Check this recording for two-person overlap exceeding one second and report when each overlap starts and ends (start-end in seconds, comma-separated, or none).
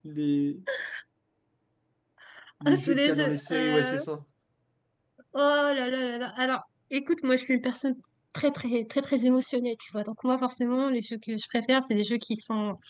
2.6-4.0